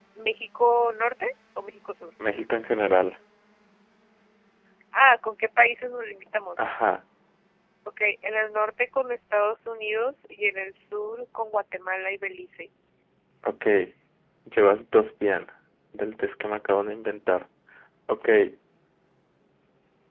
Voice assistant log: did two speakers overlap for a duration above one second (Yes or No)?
No